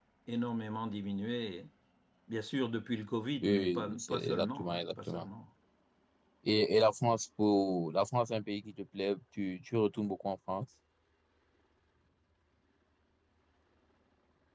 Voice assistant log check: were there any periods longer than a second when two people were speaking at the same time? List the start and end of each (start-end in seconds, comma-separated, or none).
3.4-5.3